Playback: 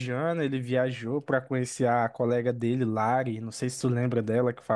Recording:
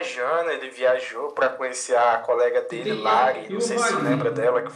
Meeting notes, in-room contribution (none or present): present